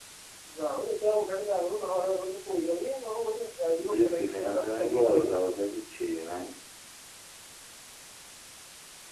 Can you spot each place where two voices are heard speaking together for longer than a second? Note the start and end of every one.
3.9-5.5

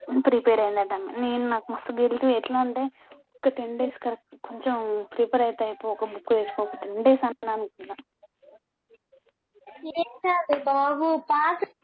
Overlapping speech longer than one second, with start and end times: none

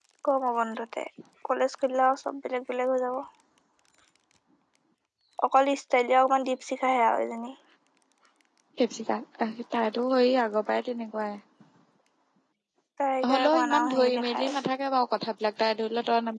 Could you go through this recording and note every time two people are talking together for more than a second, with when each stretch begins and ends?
13.3-14.6

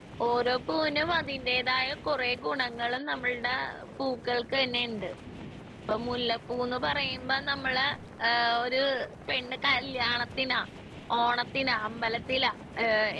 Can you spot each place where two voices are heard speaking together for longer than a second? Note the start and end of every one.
none

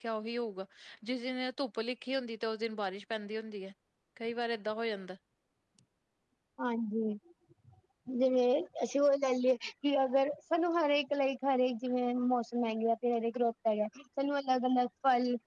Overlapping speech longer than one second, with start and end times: none

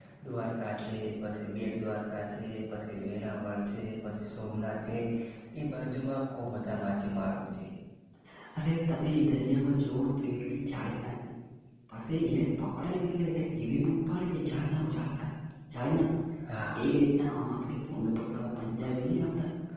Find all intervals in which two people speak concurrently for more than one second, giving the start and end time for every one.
none

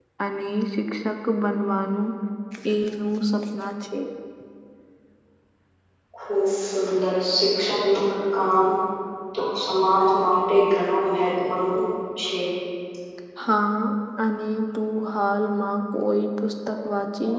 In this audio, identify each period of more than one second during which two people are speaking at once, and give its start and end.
none

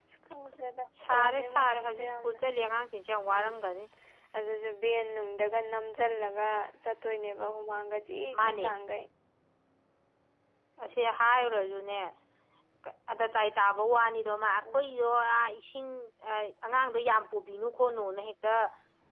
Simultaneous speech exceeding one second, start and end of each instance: 1.1-2.4

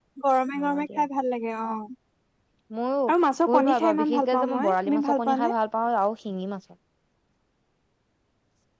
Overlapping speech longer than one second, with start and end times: 3.5-5.5

